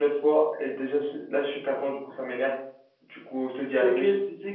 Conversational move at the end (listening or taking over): taking over